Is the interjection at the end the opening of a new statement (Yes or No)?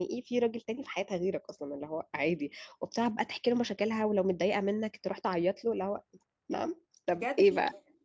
Yes